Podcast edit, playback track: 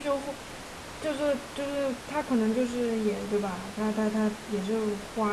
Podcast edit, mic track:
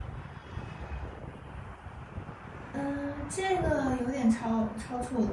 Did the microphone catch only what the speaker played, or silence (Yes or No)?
No